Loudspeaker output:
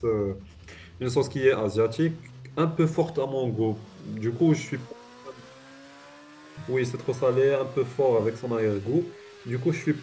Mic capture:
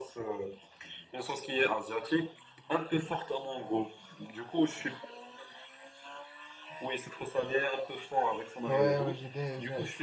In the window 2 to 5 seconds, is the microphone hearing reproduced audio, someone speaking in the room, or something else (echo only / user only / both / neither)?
echo only